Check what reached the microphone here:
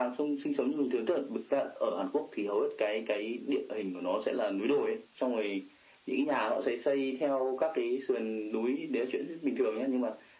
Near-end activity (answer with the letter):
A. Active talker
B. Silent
B